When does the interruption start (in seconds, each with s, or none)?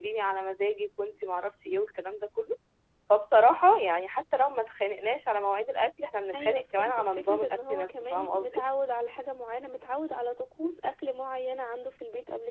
6.3 s